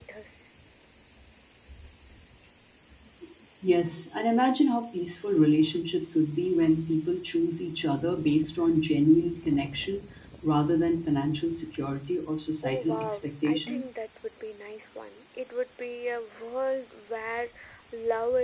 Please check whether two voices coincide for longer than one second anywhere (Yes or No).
Yes